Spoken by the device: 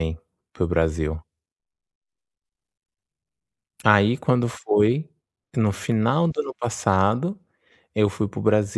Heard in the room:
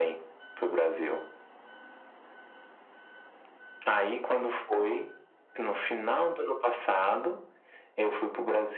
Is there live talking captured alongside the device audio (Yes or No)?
No